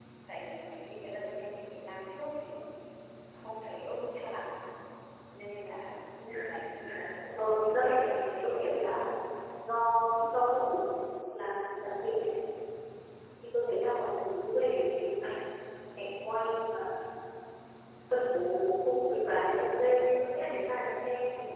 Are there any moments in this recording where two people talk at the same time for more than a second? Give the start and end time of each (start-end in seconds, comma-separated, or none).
7.4-9.0